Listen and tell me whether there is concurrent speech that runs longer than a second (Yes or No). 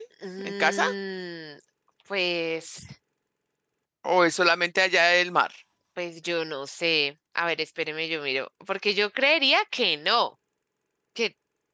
No